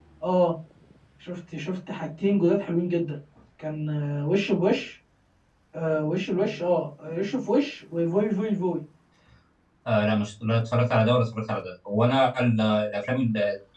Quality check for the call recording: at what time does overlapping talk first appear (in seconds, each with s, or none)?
none